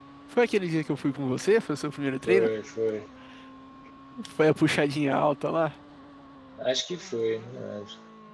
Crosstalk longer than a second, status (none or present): none